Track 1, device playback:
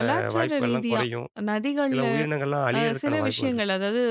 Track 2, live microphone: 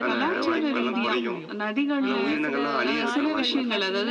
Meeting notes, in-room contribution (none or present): present